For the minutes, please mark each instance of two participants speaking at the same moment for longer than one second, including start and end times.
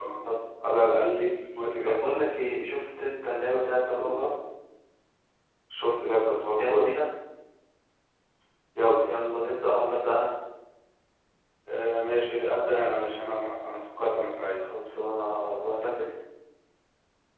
none

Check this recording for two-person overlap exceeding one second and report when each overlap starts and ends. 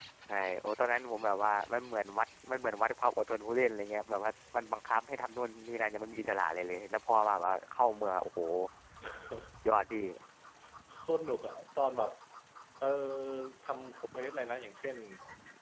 none

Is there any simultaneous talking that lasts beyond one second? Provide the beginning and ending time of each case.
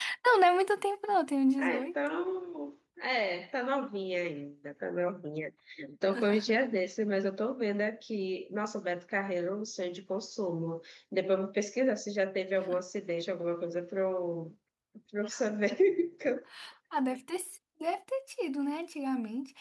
none

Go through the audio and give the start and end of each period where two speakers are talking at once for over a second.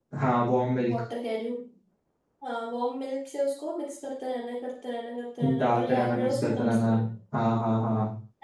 5.6-6.9

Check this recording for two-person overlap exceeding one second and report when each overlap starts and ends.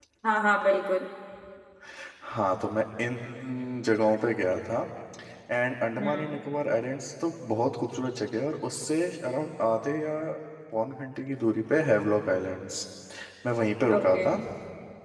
none

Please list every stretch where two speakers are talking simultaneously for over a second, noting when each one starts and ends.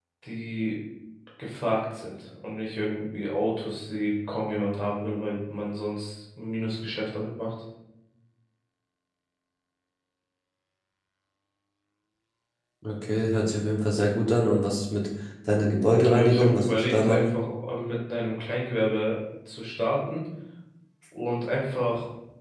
15.9-17.4

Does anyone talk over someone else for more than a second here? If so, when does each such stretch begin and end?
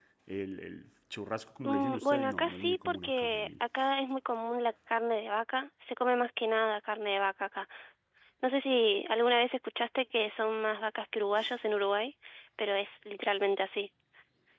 1.6-3.5

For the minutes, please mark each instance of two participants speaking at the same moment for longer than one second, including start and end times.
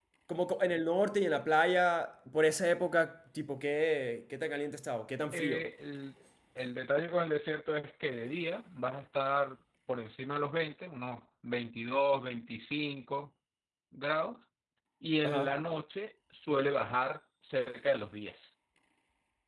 none

